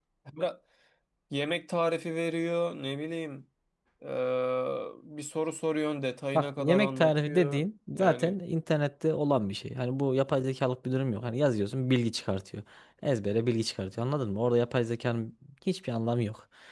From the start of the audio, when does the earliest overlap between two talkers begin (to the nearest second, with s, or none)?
6 s